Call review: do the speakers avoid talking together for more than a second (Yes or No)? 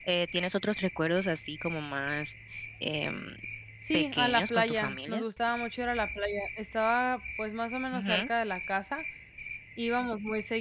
No